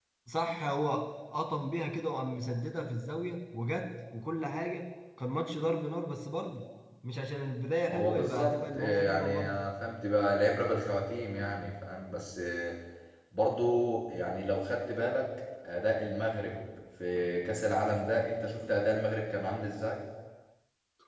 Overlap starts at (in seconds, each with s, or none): 7.9 s